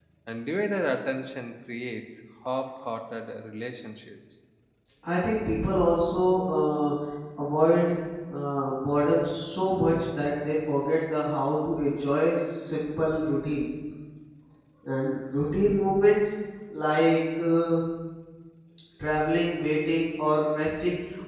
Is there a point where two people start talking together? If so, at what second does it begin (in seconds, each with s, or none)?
none